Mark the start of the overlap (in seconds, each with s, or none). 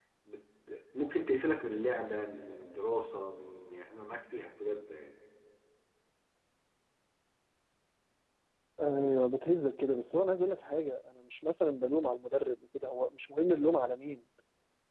none